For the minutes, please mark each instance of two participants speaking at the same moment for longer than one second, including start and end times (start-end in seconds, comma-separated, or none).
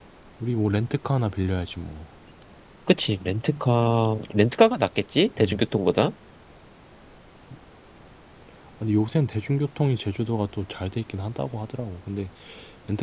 none